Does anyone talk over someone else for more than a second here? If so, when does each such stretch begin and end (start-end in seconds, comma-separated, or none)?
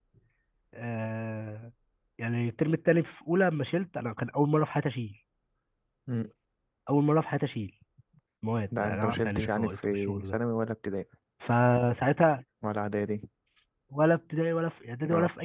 8.8-10.4